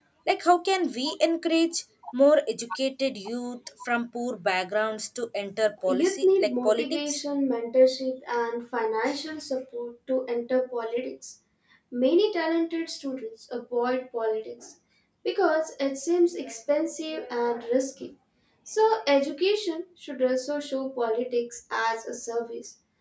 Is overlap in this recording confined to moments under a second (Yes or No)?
No